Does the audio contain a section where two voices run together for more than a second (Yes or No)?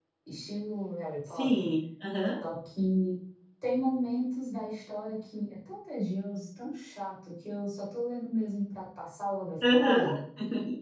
No